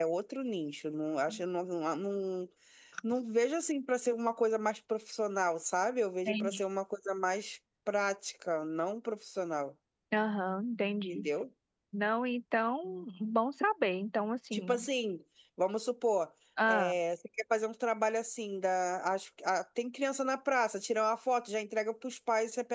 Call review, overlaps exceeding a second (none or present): none